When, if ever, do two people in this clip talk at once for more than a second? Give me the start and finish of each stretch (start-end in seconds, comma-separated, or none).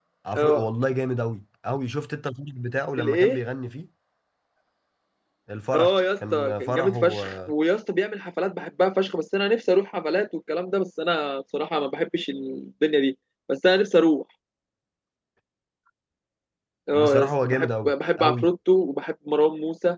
5.7-7.2, 16.9-18.5